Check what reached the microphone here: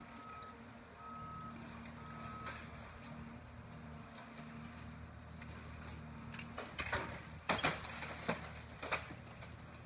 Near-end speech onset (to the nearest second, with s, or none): none